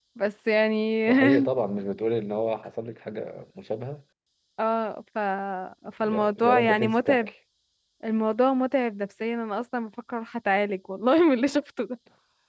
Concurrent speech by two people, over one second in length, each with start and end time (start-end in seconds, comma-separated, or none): 6.0-7.3